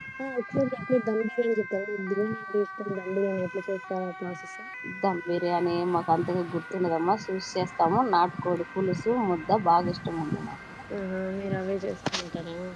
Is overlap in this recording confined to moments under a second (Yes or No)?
Yes